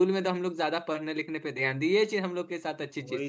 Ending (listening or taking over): taking over